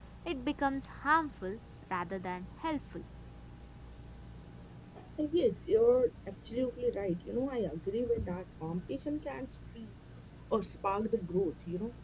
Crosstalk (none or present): none